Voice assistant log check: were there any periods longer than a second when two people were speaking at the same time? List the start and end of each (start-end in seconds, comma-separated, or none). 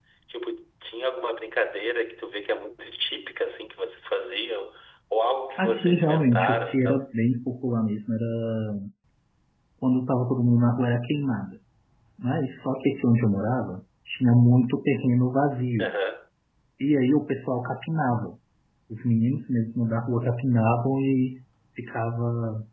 5.6-7.0